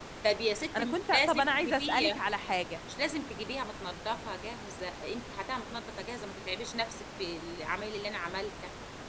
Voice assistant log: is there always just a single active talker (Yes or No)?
No